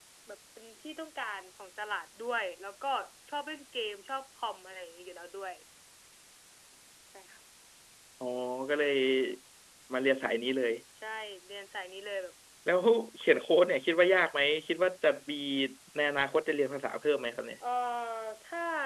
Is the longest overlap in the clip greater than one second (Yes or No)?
No